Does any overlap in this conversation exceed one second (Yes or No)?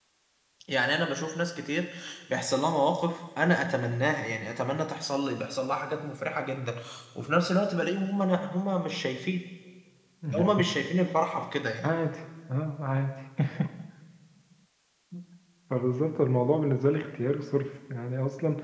No